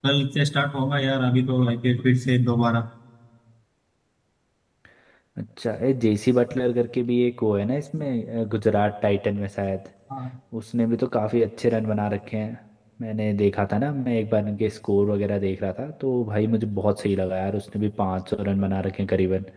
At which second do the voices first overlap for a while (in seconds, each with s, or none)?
none